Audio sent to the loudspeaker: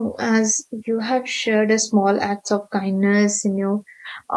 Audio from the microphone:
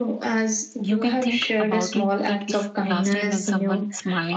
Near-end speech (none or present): present